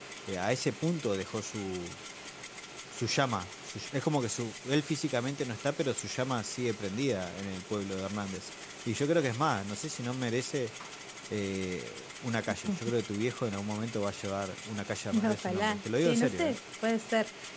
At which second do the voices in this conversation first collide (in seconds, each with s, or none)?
15.1 s